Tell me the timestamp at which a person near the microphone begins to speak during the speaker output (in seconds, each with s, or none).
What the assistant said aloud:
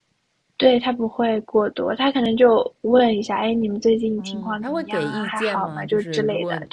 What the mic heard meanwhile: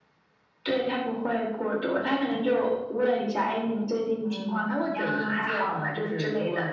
none